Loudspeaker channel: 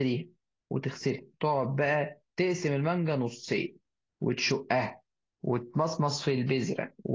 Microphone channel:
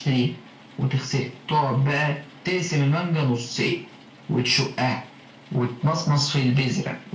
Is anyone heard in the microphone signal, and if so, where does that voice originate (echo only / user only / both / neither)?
echo only